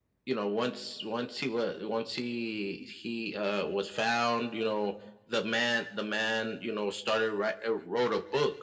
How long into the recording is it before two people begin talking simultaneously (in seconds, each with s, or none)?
none